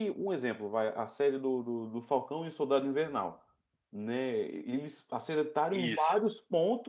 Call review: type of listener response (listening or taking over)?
listening